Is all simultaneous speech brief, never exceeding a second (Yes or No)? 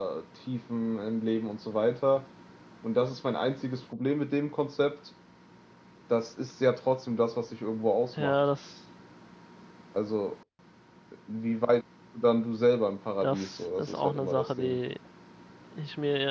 No